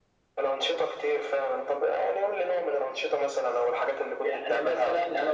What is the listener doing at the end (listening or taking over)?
taking over